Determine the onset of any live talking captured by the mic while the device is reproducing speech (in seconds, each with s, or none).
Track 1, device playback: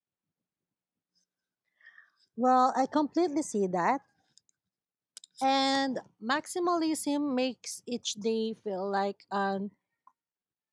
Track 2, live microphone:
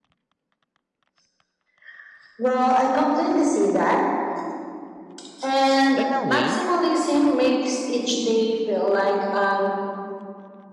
5.9 s